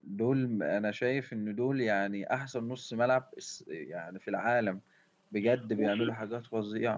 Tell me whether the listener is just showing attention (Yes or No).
Yes